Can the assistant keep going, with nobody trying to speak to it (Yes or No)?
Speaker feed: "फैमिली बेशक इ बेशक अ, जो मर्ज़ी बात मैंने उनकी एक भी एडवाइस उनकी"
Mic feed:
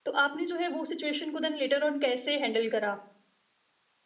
No